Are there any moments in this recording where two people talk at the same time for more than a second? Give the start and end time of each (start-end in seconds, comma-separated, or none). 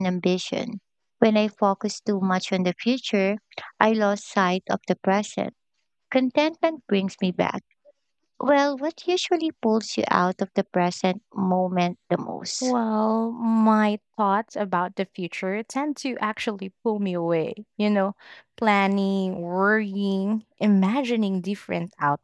none